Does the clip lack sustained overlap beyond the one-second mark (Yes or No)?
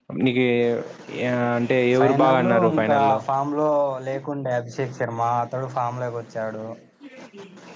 No